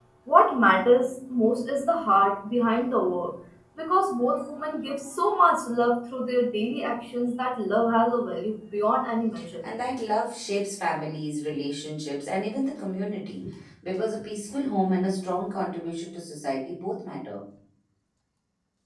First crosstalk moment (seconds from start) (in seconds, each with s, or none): none